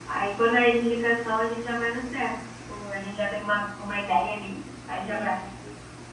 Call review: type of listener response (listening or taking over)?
taking over